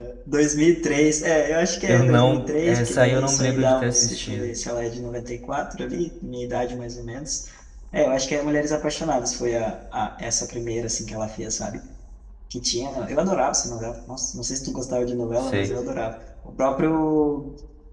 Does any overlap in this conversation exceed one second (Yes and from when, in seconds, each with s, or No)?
Yes, from 1.9 s